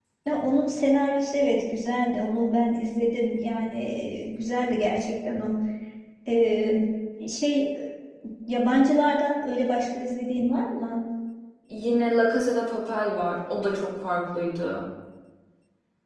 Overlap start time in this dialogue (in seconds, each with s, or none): none